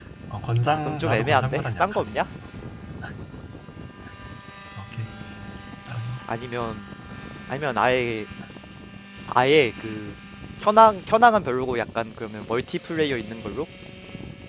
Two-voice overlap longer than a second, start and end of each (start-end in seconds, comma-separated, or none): 0.7-2.1